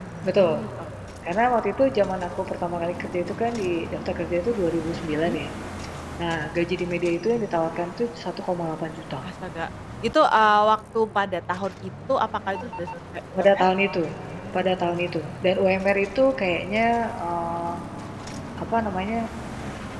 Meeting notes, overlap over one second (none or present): none